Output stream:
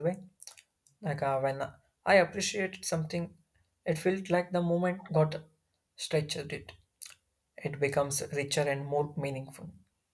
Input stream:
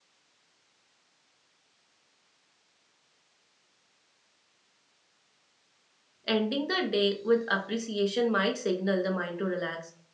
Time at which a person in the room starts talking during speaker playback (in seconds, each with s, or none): 6.2 s